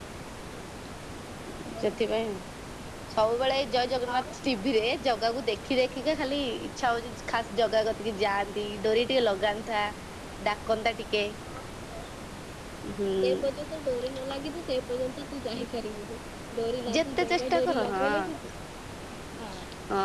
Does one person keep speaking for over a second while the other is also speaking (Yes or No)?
Yes